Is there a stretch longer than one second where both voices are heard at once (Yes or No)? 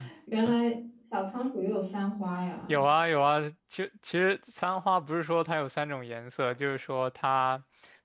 No